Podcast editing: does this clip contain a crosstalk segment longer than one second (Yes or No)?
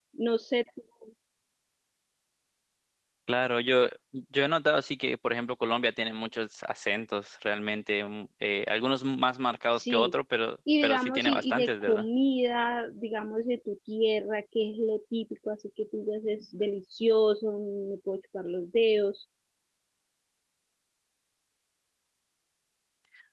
Yes